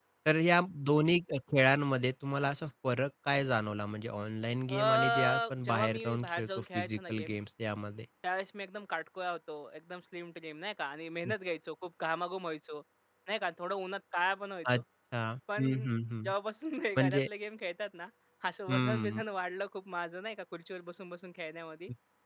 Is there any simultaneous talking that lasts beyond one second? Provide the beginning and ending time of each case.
4.7-7.3

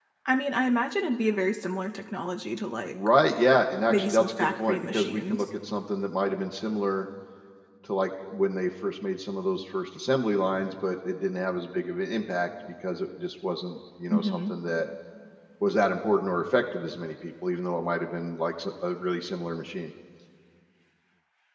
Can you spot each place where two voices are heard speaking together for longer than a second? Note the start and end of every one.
3.9-5.4

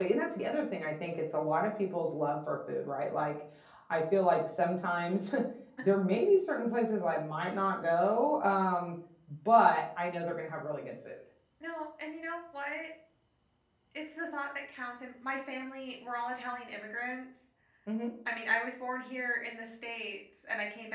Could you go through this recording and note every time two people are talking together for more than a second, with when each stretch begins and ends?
none

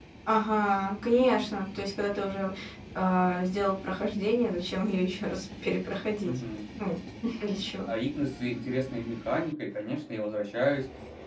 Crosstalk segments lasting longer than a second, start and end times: none

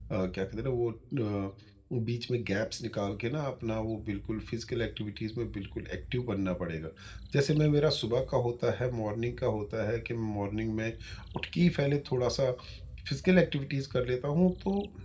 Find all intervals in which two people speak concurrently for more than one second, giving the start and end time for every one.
none

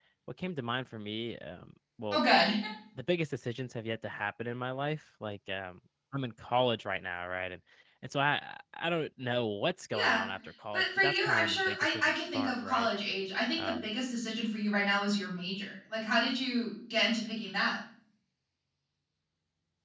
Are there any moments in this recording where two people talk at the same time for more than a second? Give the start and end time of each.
10.7-12.9

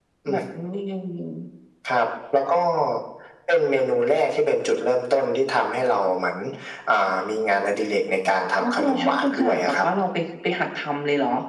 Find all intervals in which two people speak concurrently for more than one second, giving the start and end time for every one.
8.6-9.8

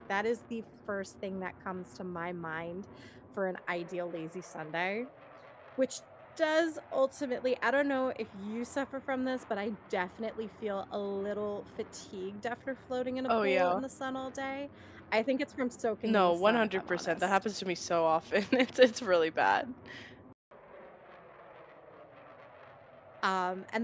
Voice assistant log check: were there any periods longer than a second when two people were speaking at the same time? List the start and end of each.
16.0-17.4

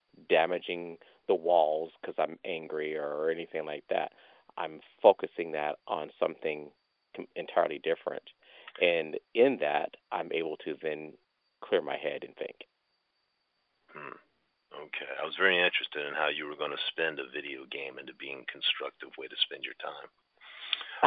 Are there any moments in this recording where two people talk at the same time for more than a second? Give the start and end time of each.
none

